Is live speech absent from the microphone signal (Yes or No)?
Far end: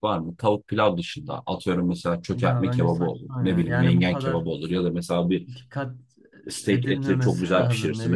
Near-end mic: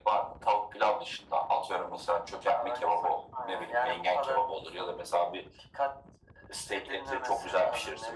Yes